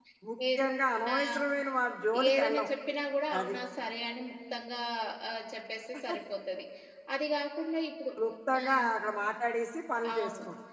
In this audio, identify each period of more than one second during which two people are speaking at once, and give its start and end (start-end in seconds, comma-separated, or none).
none